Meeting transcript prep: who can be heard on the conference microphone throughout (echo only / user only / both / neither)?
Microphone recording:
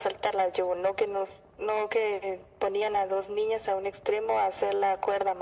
echo only